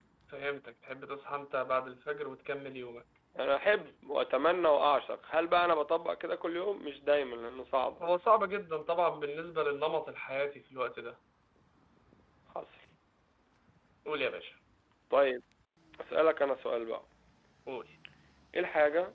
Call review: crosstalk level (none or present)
none